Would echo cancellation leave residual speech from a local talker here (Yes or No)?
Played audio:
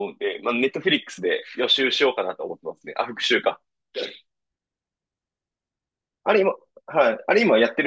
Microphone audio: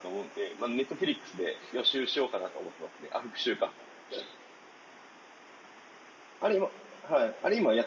No